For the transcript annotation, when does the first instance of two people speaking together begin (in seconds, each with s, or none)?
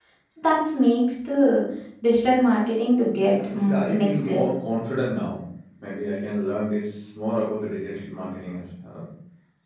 3.2 s